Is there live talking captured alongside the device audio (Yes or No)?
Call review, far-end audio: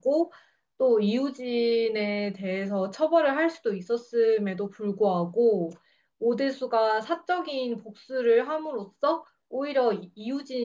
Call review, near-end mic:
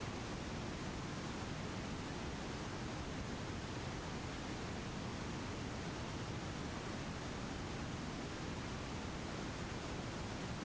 No